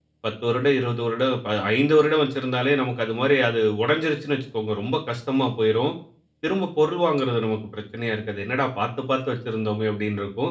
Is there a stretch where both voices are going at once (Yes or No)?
No